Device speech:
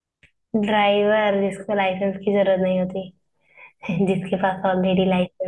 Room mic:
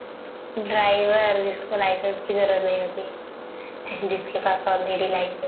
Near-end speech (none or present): none